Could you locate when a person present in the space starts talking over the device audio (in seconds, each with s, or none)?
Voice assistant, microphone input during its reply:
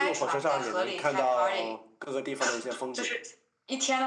none